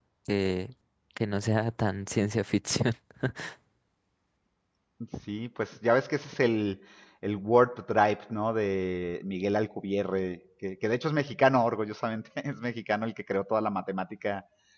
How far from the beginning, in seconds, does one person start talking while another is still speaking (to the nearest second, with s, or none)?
none